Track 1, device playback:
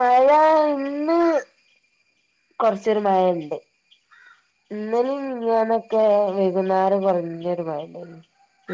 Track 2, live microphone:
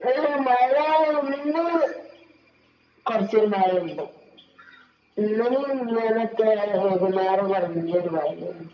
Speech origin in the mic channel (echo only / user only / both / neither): echo only